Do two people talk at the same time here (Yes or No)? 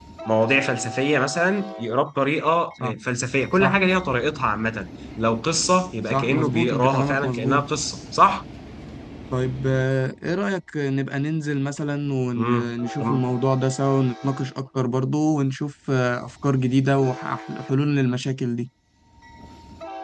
Yes